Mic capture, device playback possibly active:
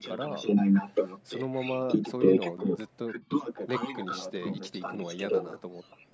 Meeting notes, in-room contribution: present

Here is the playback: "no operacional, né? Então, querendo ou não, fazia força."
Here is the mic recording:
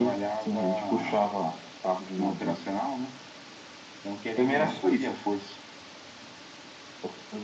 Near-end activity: present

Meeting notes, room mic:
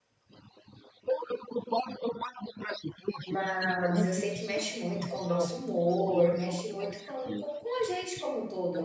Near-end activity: present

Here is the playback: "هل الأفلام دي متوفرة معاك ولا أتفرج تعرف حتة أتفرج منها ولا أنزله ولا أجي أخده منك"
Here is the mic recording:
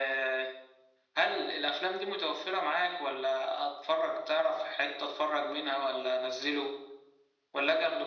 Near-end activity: none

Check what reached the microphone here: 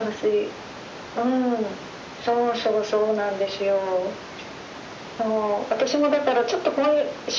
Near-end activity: none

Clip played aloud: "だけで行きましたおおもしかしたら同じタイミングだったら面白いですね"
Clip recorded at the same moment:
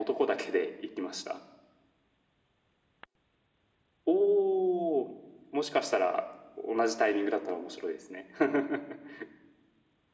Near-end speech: none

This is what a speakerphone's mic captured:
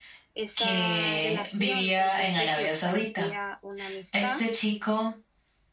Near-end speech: present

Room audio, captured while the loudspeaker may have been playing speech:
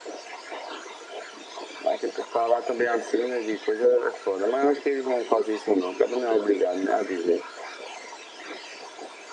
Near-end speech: none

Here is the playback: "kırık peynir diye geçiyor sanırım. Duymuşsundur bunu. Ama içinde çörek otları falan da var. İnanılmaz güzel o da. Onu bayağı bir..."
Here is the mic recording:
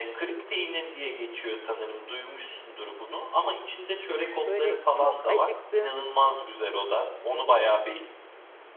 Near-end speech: present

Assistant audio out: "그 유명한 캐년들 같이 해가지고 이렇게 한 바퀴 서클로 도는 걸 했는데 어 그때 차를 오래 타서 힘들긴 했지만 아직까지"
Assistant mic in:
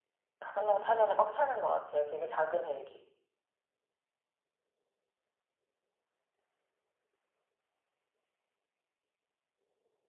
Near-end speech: present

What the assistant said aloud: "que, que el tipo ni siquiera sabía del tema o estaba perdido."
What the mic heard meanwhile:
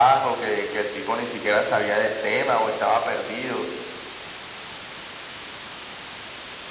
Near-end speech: none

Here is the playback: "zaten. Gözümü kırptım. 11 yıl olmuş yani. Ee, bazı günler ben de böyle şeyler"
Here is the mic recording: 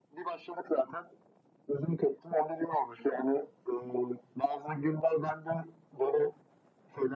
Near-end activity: none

